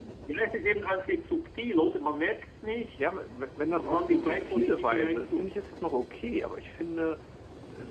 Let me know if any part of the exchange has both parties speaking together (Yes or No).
Yes